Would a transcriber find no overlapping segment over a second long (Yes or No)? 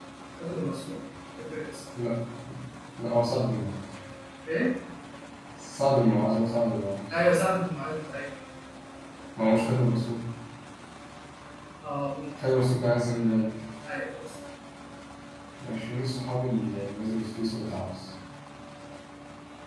Yes